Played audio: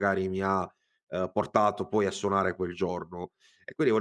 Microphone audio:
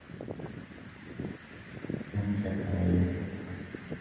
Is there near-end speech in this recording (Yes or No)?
Yes